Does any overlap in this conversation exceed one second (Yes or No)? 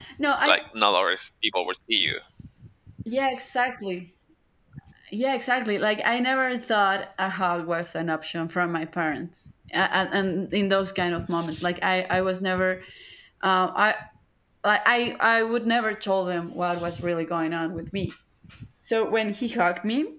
No